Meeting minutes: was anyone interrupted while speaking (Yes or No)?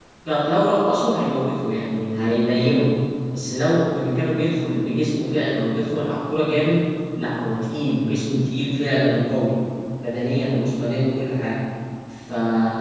No